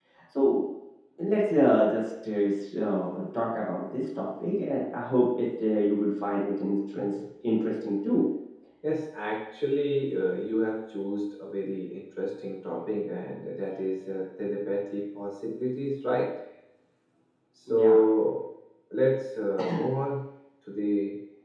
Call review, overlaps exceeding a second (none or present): none